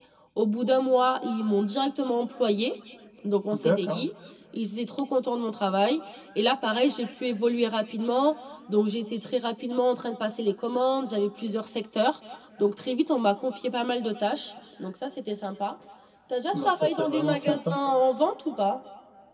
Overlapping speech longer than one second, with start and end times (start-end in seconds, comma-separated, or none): 16.5-17.8